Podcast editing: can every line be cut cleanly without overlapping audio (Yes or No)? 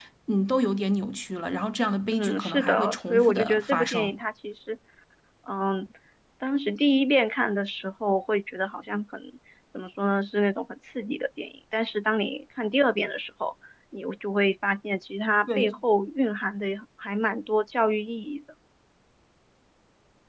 No